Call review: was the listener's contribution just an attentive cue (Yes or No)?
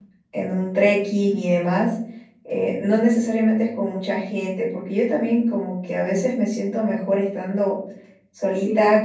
Yes